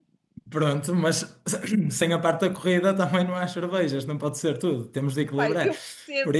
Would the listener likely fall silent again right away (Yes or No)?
No